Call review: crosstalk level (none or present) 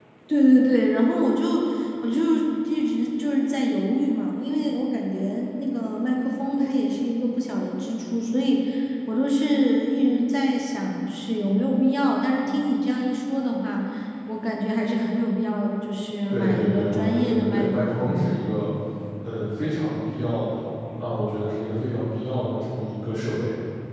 present